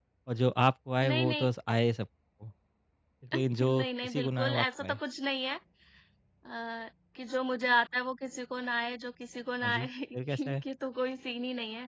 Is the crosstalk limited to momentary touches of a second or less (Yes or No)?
No